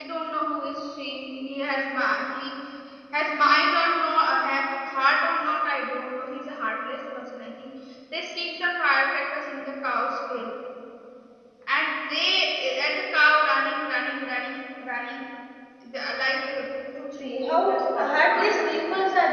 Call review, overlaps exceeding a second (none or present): present